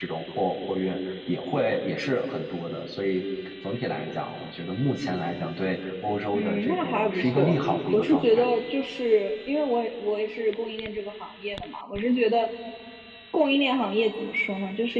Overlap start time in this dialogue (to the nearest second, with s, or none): 6 s